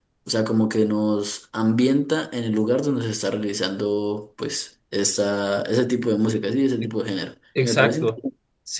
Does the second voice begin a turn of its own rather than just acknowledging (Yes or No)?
Yes